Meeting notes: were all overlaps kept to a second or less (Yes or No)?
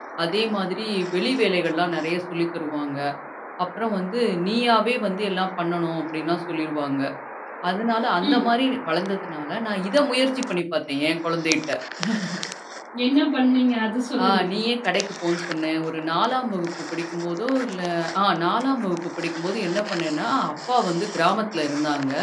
Yes